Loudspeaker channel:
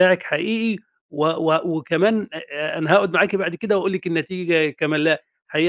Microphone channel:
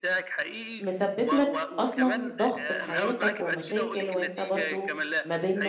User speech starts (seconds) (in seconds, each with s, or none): 0.8 s